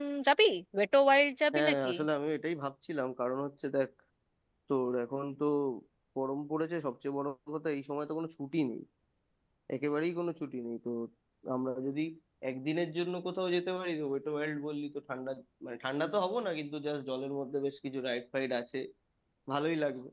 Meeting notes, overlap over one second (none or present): none